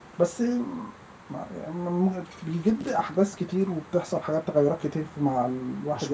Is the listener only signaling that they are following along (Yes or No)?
Yes